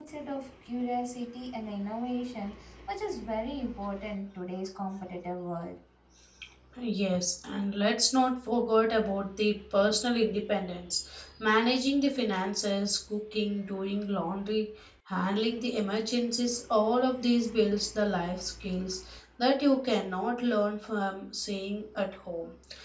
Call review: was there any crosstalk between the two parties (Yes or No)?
No